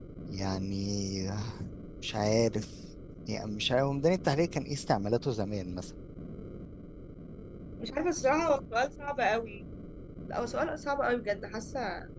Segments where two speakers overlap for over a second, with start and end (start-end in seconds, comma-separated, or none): none